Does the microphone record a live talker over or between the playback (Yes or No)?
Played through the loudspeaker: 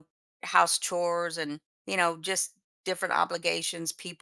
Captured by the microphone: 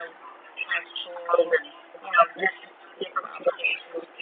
No